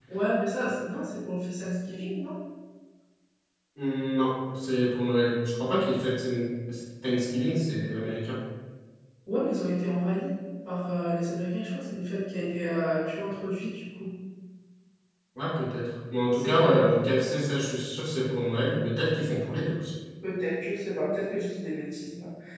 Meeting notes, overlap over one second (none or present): none